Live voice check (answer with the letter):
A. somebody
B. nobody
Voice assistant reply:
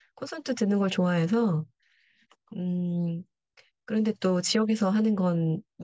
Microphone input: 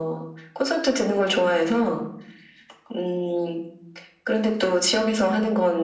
B